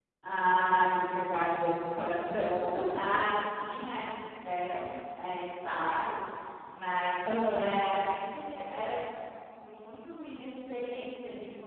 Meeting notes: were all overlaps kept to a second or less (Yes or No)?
Yes